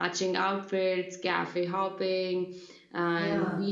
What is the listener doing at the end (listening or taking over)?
listening